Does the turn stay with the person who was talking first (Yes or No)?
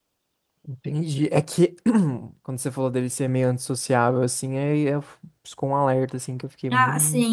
No